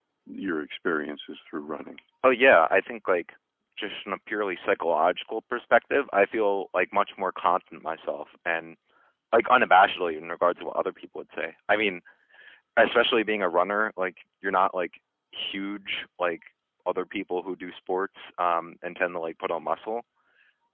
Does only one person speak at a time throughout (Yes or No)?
Yes